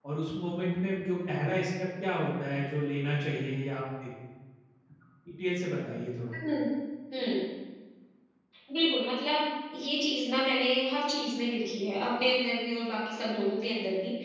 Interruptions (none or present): none